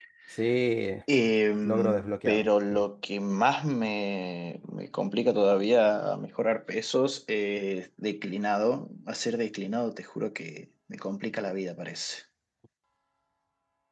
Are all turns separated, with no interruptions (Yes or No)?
No